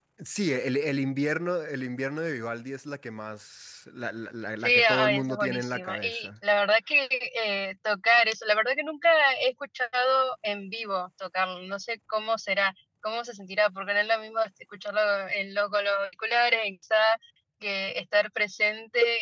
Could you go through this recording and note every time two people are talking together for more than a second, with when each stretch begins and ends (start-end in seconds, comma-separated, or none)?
4.6-6.3